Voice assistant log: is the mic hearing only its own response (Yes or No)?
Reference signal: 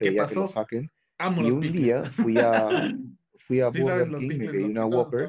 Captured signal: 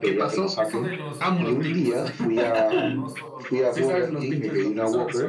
No